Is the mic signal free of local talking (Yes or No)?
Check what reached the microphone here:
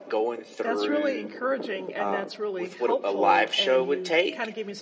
No